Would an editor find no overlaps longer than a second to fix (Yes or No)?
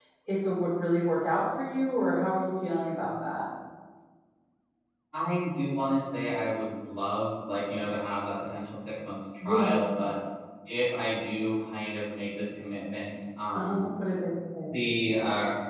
Yes